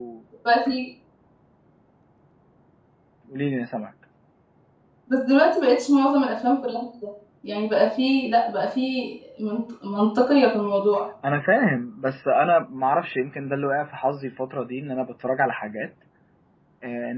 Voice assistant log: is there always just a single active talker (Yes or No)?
Yes